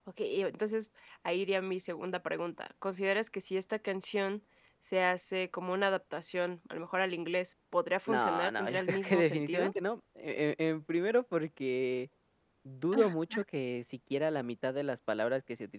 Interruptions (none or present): present